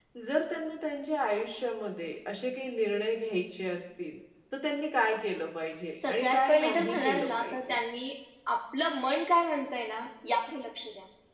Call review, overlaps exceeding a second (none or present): present